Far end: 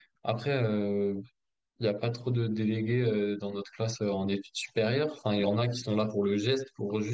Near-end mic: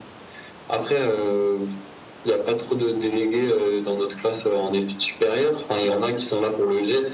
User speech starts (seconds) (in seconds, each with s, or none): none